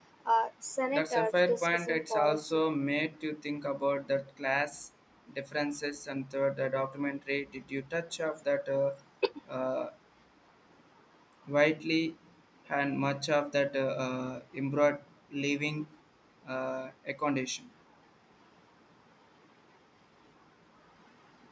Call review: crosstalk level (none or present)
present